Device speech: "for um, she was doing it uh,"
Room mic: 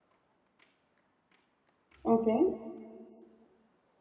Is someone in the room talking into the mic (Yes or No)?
Yes